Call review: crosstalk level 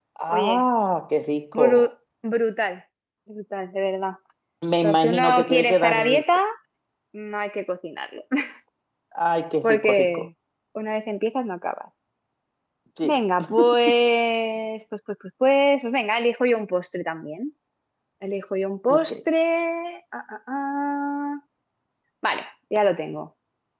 present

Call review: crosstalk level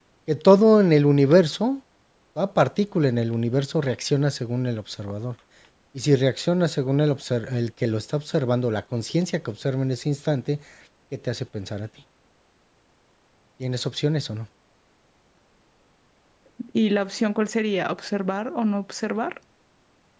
none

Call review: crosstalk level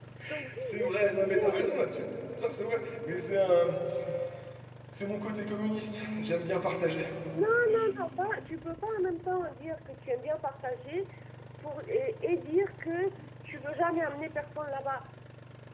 present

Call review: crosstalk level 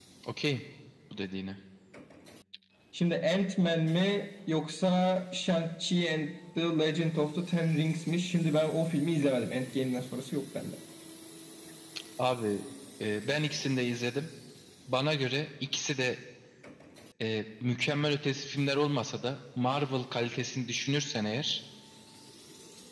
none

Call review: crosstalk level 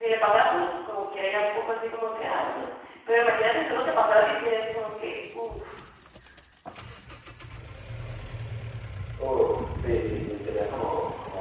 none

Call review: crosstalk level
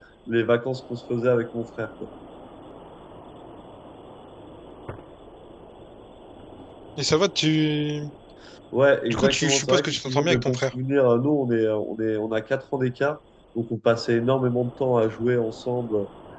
present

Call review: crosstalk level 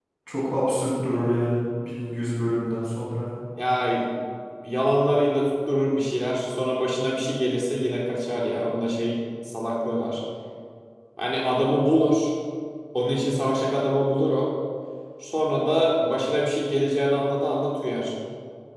none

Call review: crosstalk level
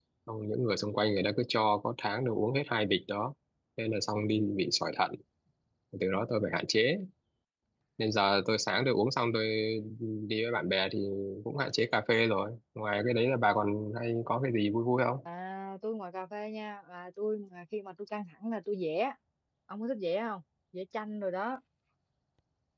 none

